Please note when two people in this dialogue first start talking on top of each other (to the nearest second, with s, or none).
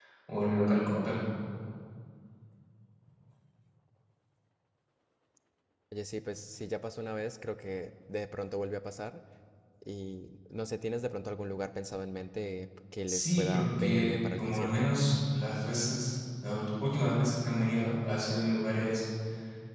13 s